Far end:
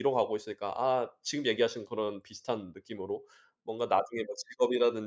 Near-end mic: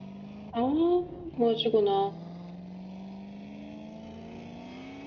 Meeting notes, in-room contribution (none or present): present